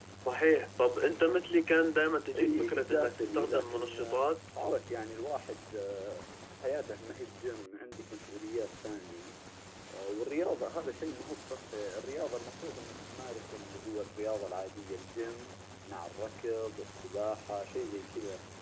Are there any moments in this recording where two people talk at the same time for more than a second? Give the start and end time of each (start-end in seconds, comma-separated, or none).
2.4-4.3